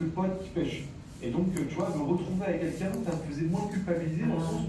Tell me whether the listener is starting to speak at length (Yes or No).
No